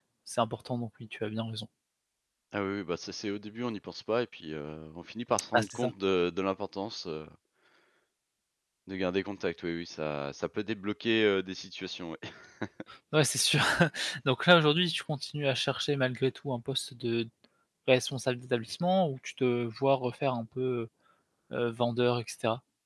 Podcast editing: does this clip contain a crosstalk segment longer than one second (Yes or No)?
No